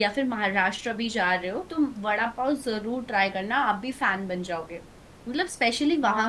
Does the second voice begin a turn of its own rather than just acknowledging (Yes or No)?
Yes